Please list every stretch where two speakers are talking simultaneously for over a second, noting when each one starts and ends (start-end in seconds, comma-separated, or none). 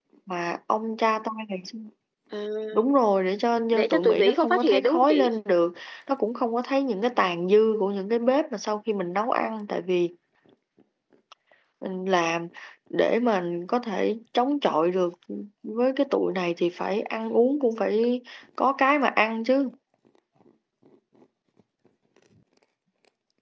3.7-5.3